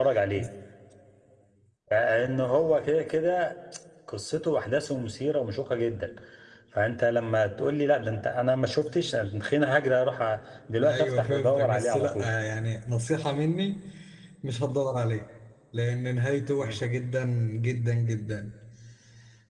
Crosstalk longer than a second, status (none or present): present